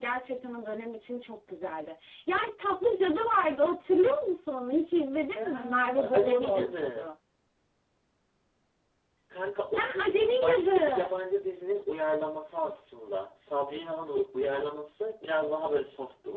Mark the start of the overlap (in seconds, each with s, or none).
5.3 s